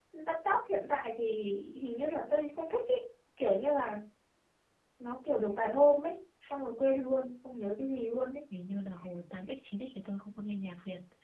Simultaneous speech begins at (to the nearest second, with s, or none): none